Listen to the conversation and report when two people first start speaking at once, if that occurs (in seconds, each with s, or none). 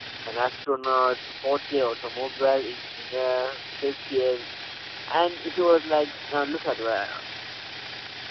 none